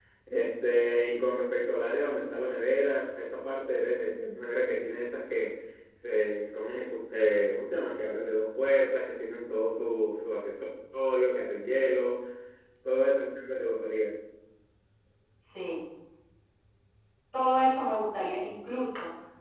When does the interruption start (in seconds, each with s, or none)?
none